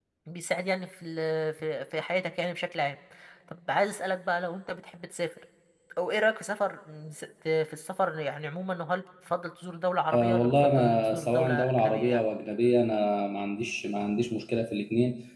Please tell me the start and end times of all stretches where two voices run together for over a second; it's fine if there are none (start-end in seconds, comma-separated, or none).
10.1-12.2